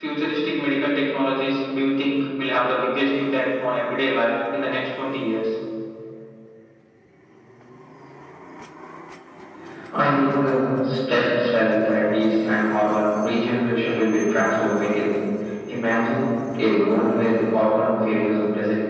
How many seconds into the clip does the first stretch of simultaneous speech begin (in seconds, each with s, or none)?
none